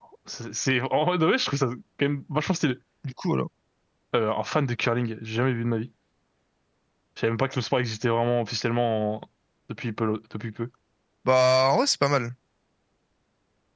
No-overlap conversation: Yes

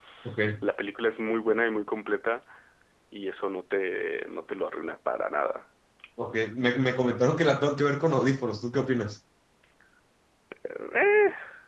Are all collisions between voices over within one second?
Yes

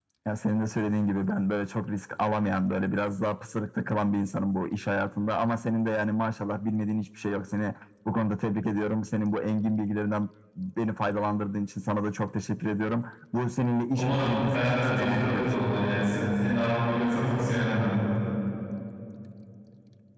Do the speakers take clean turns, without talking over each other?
No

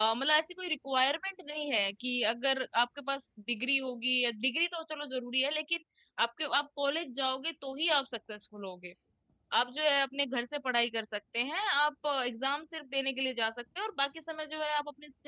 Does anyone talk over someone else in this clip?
No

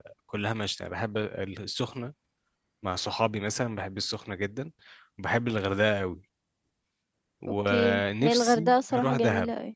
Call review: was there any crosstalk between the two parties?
Yes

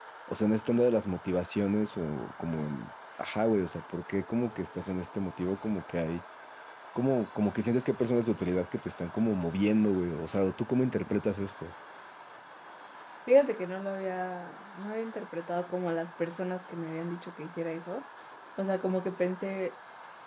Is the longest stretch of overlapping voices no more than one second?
Yes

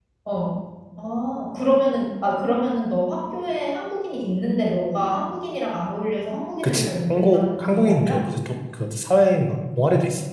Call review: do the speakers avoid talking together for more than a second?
No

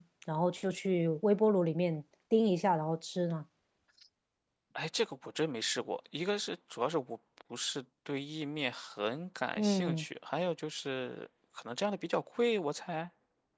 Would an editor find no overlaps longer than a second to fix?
Yes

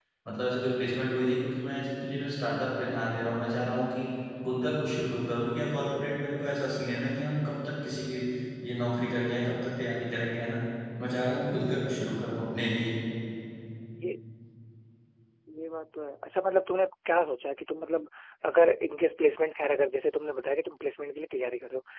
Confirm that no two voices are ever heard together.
Yes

